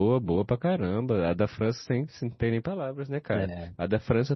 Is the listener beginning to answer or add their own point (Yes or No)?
No